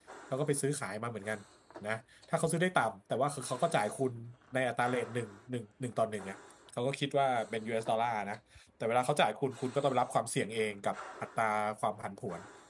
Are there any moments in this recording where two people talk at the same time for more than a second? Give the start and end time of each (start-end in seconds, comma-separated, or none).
none